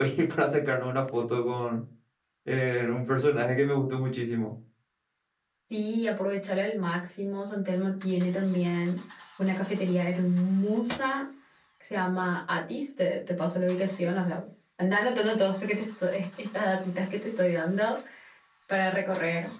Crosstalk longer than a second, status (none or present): none